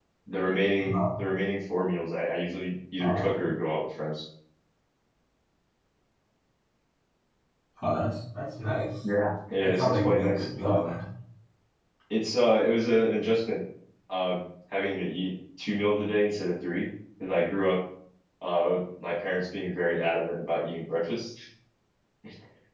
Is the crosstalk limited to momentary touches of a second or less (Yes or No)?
No